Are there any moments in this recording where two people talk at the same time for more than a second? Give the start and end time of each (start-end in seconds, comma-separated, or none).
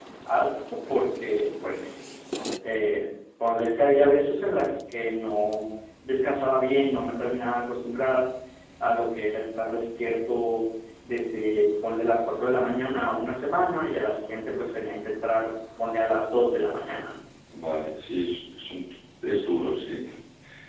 none